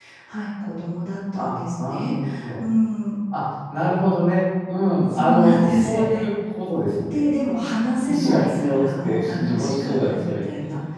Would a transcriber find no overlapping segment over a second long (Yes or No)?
No